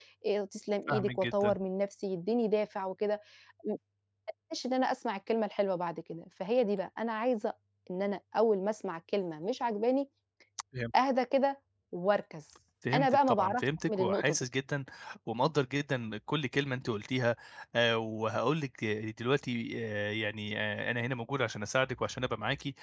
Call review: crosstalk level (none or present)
present